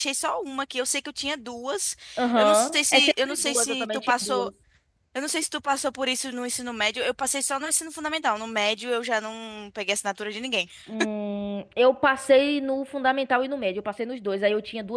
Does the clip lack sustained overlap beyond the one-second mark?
No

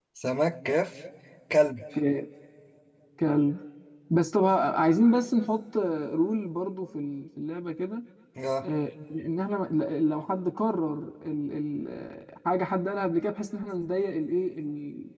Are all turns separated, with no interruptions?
Yes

